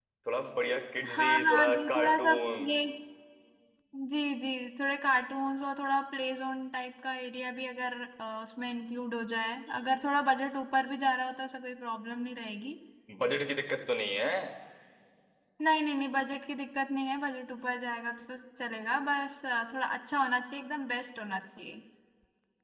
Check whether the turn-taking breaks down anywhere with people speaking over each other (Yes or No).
Yes